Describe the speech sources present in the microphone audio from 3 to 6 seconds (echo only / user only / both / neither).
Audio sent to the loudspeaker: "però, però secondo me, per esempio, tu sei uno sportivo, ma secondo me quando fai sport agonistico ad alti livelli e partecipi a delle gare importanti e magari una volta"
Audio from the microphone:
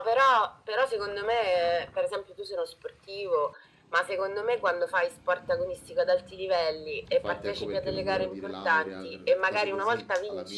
echo only